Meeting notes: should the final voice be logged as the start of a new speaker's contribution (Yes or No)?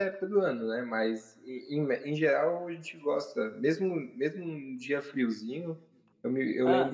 No